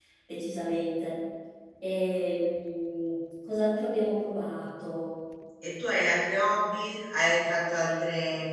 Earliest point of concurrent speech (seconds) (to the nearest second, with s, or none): none